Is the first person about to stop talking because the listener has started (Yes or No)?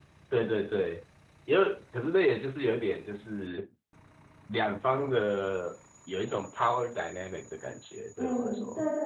Yes